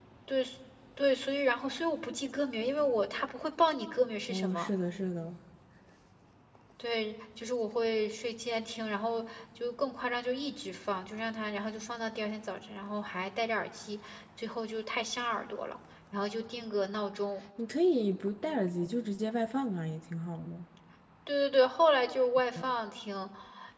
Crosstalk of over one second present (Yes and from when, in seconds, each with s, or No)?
No